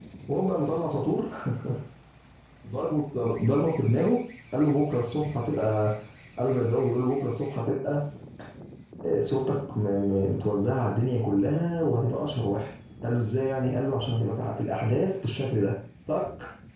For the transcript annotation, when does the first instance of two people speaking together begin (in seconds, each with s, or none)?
none